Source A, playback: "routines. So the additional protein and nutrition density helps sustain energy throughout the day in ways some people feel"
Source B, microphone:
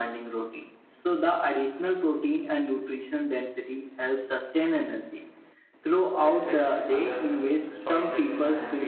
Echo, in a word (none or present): present